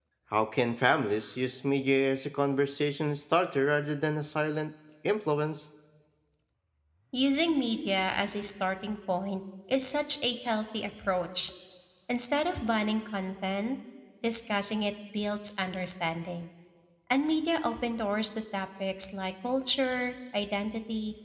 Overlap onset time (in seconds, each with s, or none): none